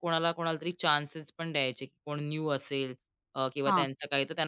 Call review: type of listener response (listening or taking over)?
listening